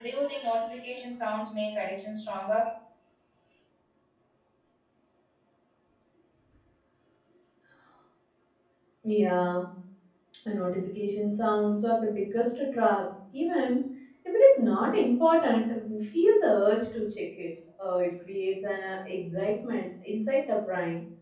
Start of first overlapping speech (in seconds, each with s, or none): none